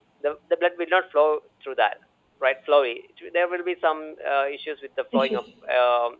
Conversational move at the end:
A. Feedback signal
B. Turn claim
A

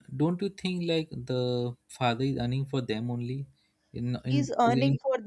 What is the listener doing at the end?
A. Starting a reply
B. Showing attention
A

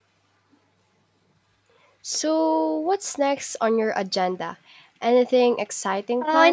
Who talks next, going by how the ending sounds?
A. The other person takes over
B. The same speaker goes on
A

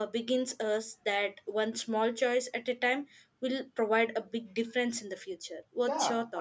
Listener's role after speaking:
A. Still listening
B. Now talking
B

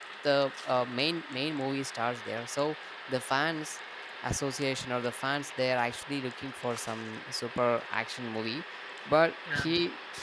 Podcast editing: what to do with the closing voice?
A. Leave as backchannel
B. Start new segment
A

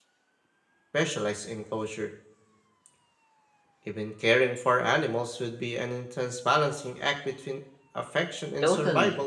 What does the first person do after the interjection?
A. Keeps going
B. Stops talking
B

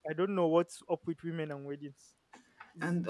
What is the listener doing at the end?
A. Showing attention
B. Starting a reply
A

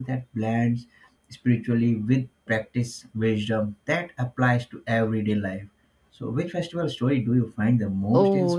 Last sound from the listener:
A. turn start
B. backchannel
A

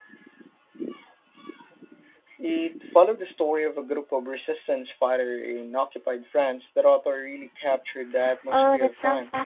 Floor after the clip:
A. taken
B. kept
A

